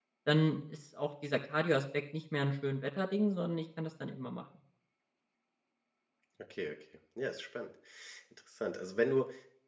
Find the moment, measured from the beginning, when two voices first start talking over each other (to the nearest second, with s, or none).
none